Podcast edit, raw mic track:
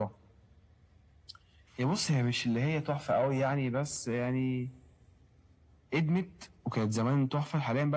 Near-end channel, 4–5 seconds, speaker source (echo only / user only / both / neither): echo only